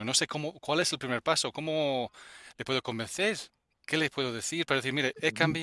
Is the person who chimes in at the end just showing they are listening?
Yes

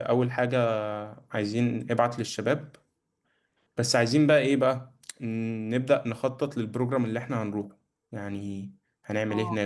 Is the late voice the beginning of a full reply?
Yes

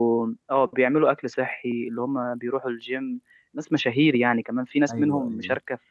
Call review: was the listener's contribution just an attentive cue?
Yes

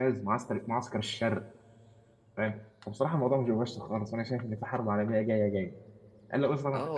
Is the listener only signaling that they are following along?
No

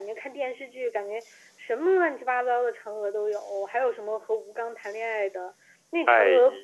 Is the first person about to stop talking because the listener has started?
No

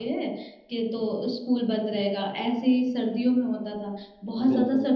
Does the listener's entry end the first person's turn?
No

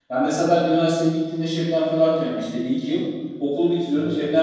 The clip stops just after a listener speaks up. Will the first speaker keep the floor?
Yes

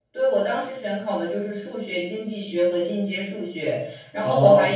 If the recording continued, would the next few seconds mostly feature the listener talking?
No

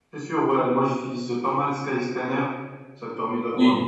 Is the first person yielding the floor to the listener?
No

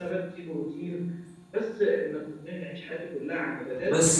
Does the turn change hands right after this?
Yes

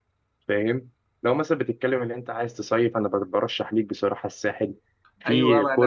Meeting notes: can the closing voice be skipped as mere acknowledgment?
No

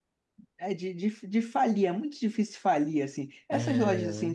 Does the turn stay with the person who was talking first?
Yes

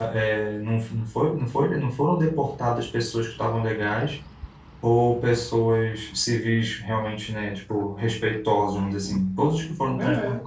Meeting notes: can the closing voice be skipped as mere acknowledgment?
Yes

